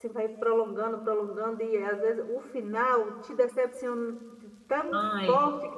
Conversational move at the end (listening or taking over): listening